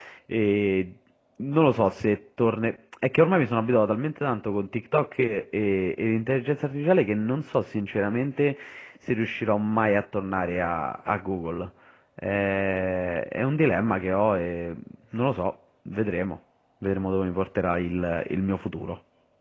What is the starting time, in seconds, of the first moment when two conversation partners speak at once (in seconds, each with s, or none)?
none